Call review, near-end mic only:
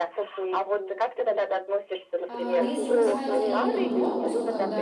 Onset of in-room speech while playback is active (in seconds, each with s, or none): 2.3 s